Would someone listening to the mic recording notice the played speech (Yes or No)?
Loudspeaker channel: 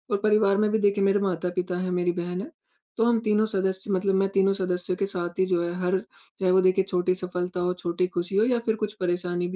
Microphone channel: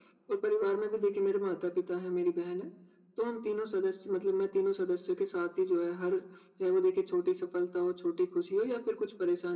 Yes